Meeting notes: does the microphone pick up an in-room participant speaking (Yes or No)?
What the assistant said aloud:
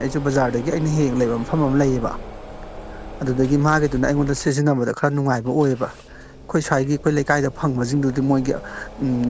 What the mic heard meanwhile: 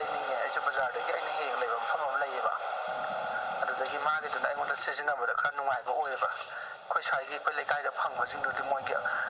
No